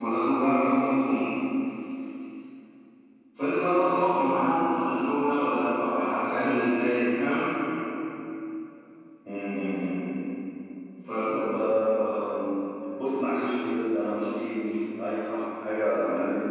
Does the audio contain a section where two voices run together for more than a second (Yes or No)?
No